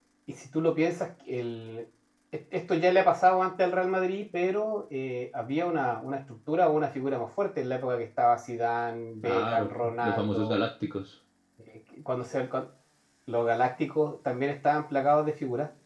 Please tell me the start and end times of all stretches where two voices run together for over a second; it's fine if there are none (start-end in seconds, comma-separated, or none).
9.2-10.6